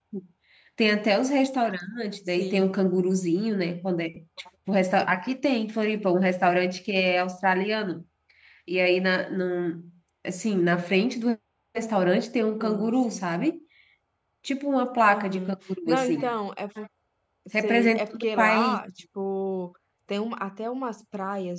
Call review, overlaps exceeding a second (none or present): present